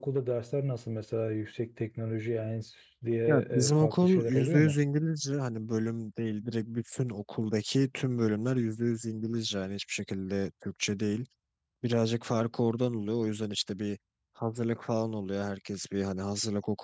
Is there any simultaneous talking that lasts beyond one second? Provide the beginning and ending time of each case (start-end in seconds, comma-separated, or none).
3.3-4.7